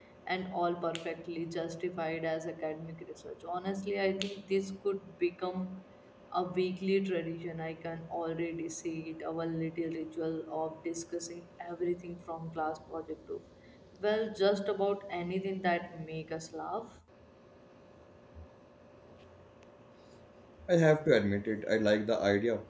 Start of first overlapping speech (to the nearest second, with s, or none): none